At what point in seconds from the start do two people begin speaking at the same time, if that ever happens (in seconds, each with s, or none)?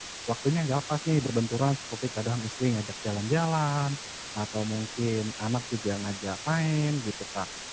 none